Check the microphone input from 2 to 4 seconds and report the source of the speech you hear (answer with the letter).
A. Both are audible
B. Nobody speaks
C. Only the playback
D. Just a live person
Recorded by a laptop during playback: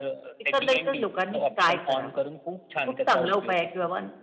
A